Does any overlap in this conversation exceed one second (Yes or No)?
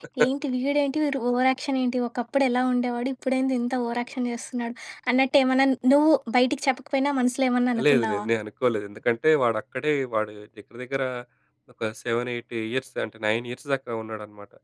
No